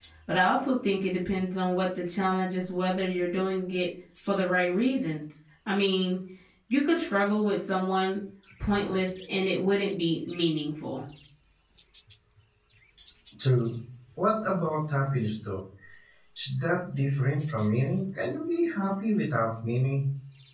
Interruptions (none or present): none